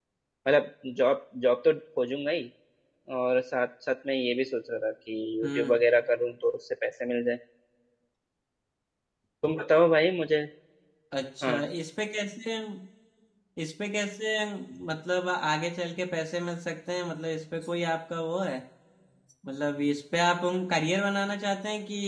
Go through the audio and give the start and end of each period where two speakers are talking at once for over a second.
none

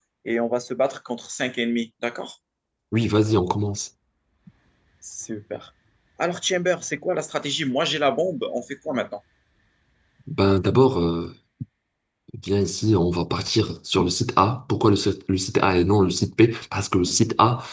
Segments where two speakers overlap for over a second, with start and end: none

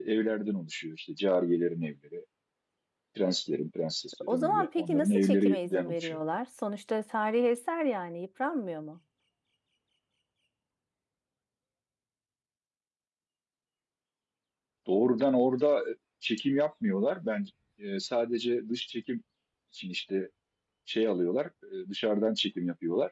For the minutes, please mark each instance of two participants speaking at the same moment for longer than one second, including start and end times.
4.3-6.2

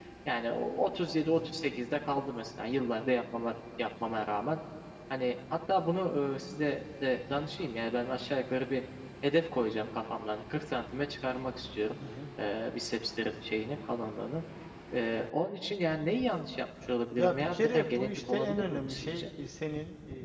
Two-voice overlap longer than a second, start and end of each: 17.2-19.3

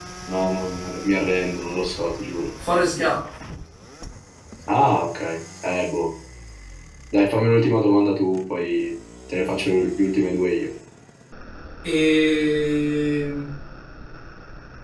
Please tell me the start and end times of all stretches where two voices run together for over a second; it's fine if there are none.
none

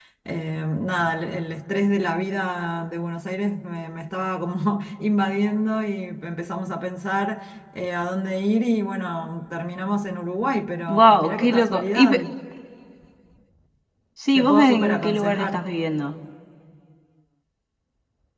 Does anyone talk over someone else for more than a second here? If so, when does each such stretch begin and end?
10.9-12.2, 14.3-15.6

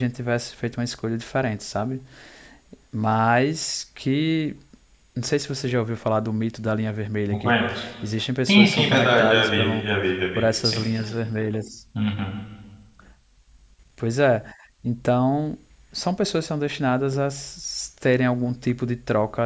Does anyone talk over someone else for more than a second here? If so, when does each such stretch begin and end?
8.5-9.9

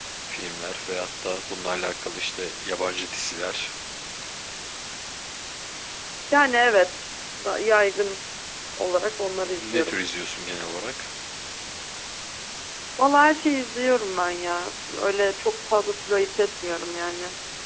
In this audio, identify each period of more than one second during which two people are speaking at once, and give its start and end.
none

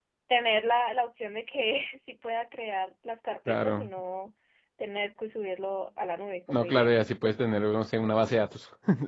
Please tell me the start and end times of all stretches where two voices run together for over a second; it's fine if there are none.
none

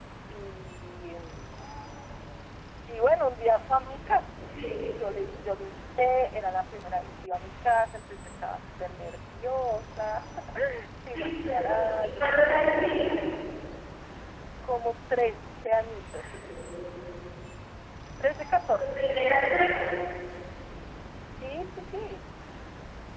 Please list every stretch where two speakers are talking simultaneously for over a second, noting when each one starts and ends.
11.1-13.0

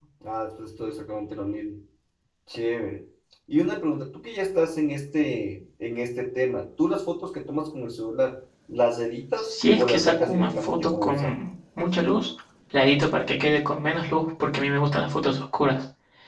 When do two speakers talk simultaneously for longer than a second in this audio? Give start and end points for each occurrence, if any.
9.4-11.4

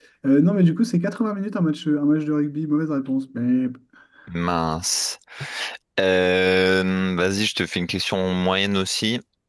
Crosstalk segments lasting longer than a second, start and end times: none

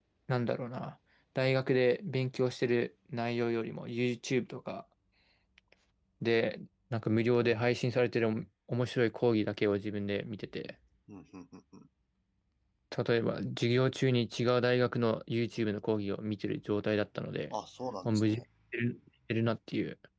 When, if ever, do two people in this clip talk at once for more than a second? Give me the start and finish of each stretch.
none

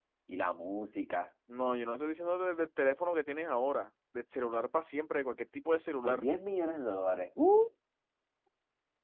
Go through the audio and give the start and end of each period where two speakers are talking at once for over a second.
none

